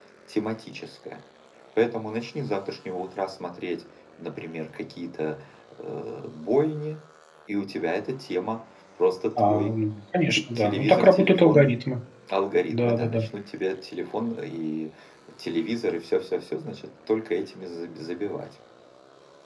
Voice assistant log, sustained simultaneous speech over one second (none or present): present